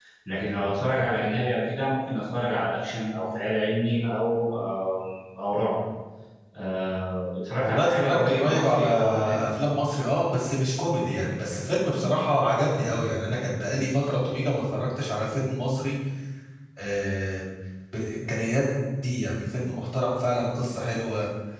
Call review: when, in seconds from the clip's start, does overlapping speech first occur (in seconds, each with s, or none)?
7.6 s